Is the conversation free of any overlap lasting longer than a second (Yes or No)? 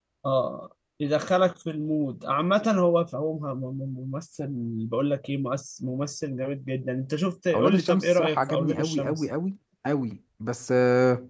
No